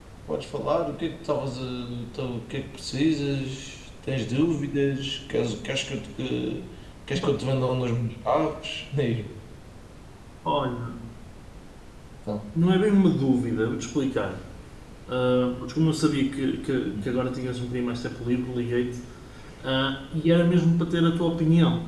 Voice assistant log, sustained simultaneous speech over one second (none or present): none